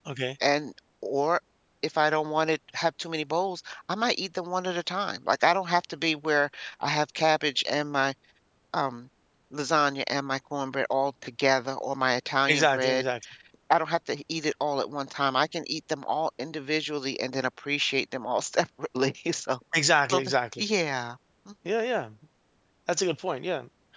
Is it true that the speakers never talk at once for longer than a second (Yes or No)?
Yes